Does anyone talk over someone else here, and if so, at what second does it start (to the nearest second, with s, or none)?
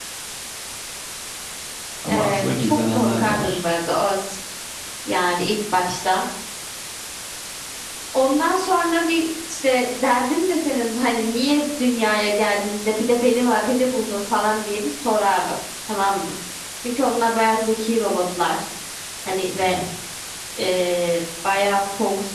2 s